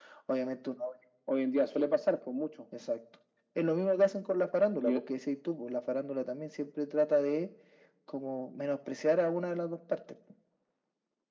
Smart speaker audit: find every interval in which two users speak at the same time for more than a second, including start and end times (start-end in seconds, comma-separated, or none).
none